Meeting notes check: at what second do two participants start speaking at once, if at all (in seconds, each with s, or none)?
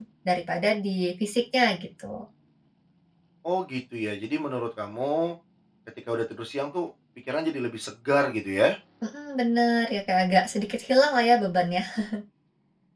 none